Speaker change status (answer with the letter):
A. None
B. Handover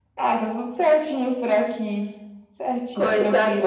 B